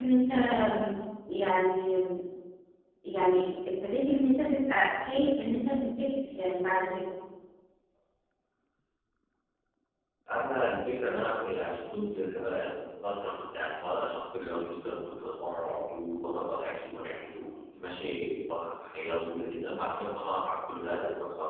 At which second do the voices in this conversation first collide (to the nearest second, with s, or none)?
none